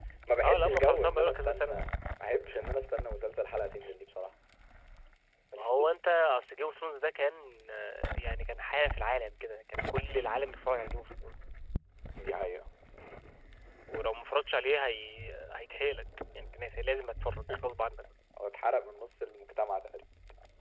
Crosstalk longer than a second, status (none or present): present